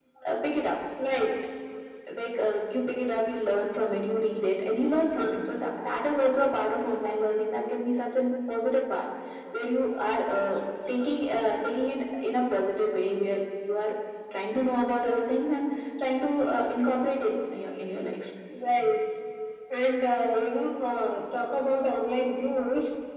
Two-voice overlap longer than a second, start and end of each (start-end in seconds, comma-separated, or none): none